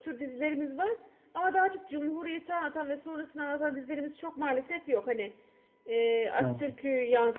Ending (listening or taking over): listening